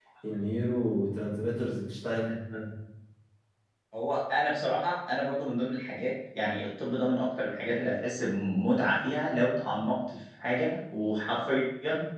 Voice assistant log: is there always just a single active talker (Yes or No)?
Yes